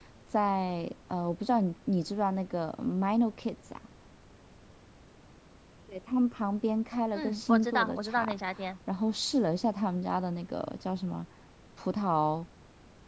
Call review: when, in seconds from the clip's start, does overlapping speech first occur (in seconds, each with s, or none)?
7.2 s